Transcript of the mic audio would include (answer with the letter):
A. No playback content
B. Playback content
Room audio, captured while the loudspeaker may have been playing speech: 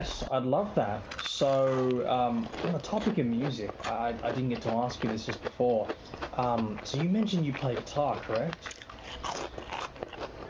A